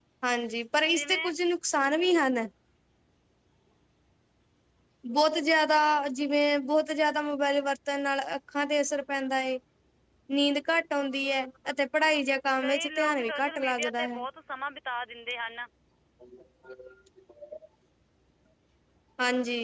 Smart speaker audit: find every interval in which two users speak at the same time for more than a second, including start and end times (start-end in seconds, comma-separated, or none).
12.6-14.2